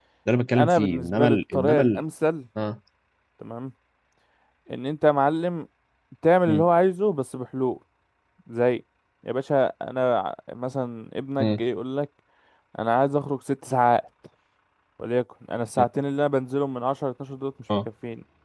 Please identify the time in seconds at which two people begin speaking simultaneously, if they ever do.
0.5 s

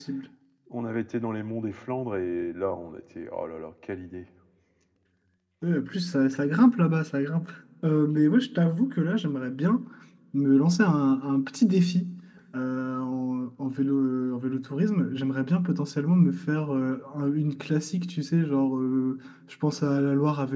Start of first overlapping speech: none

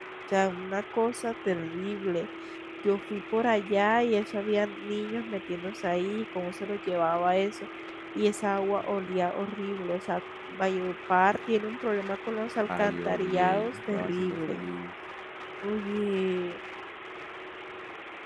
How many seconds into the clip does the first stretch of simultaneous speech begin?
12.6 s

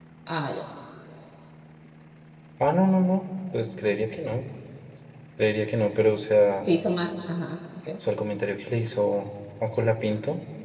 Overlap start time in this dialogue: none

